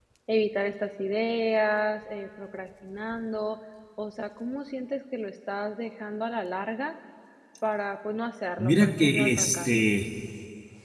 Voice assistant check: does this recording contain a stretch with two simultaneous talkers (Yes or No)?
Yes